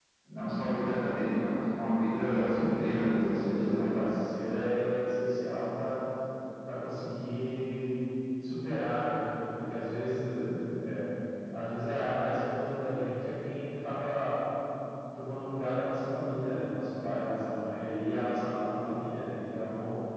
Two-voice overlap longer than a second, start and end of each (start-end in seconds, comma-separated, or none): 2.3-3.9